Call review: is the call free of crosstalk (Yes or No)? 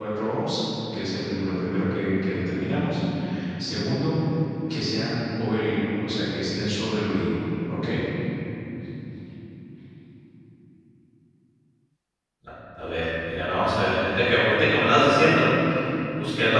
Yes